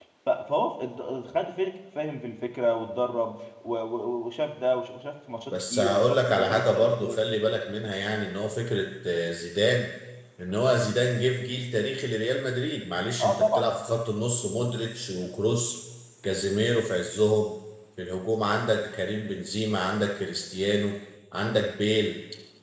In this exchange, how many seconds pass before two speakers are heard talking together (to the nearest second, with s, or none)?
6 s